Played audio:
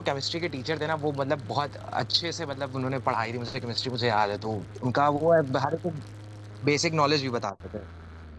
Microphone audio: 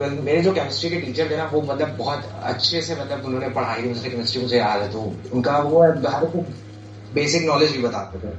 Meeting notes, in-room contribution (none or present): none